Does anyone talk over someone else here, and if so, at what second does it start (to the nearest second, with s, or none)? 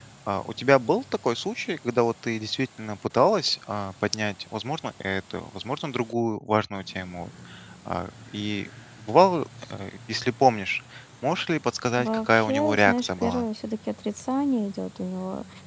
12 s